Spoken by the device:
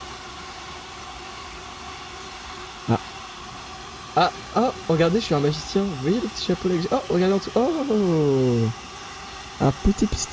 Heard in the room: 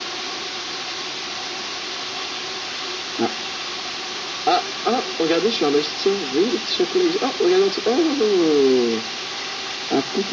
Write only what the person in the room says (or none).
none